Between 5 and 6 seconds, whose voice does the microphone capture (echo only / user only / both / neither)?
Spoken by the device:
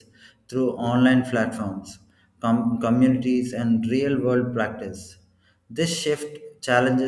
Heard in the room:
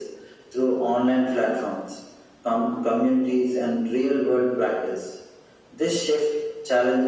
echo only